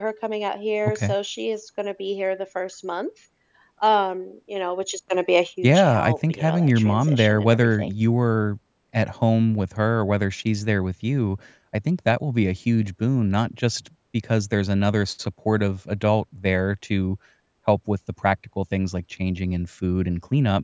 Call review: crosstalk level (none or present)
present